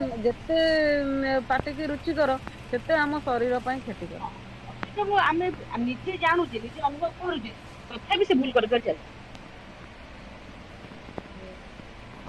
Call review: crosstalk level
none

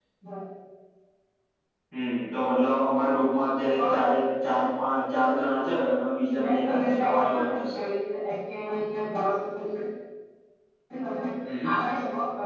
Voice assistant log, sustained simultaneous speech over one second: present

